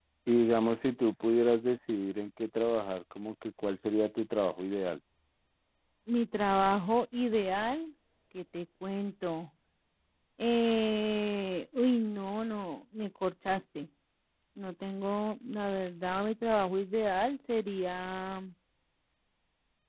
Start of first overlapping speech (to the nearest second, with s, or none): none